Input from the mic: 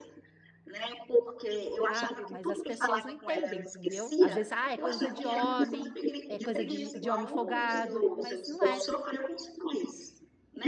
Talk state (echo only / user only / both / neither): both